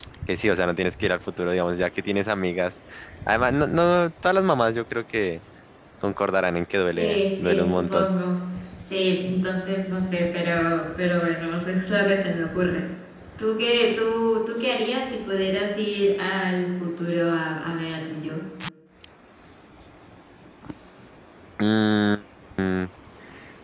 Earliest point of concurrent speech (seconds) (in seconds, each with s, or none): 6.9 s